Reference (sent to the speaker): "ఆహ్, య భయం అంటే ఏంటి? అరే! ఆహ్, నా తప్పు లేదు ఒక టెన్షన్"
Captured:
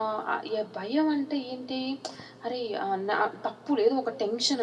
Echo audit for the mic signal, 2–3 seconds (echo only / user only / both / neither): echo only